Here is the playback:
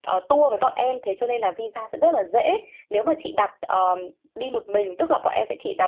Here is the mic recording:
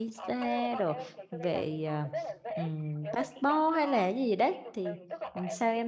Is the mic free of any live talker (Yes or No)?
No